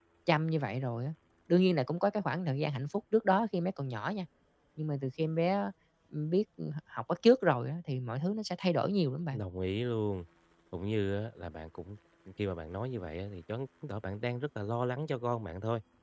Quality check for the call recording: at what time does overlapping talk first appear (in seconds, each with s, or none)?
none